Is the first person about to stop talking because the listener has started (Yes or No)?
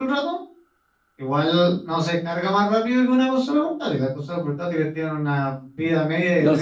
Yes